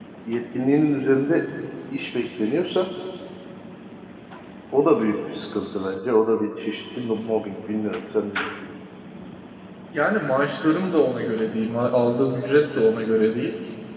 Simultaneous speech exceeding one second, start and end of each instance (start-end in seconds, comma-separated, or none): none